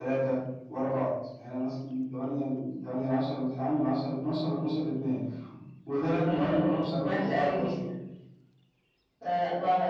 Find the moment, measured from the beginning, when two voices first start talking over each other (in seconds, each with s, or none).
6.2 s